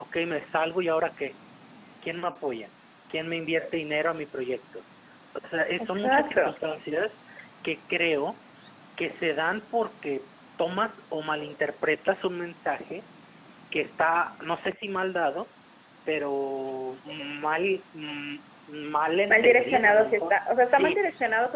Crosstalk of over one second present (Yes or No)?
Yes